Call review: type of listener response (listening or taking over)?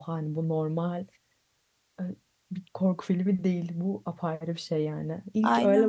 listening